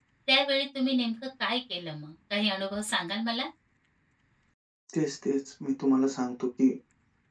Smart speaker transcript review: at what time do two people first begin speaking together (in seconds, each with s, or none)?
none